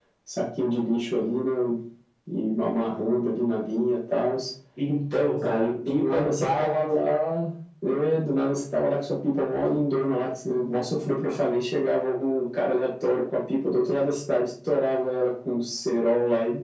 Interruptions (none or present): present